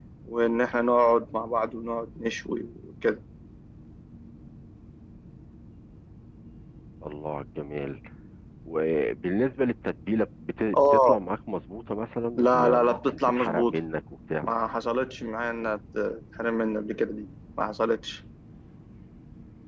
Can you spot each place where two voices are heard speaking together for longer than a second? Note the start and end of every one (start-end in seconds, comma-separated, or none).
12.4-13.8